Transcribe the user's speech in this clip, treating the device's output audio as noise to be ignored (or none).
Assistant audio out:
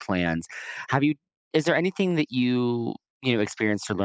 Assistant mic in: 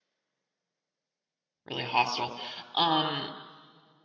really hostile um